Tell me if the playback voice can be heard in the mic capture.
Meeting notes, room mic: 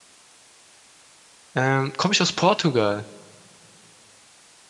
No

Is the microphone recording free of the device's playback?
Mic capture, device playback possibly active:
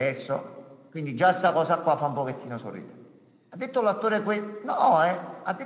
No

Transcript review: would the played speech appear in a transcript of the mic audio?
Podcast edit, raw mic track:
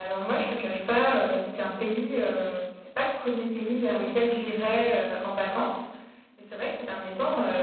No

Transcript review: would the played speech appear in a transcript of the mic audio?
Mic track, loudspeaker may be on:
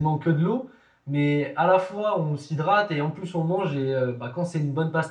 No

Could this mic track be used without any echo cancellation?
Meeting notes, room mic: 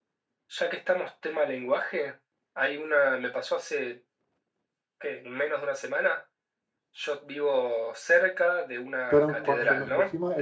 No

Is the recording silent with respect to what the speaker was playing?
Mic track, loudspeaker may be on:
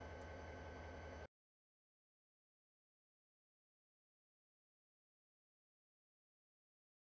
Yes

